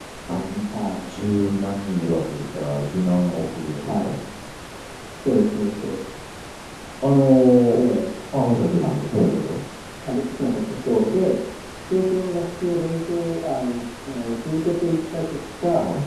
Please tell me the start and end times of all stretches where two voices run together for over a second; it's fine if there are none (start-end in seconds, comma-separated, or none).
none